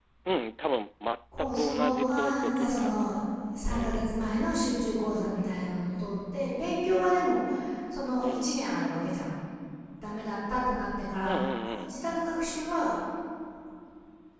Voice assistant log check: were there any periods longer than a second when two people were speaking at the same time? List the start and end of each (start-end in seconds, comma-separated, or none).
1.4-2.9